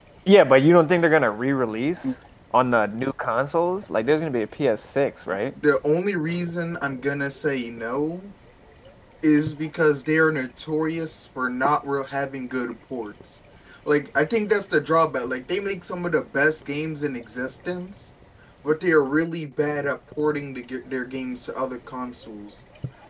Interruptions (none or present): none